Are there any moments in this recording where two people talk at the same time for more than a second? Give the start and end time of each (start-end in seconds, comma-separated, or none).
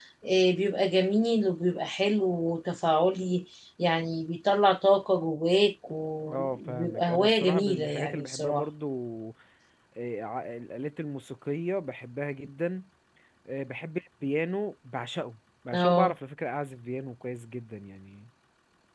6.3-8.6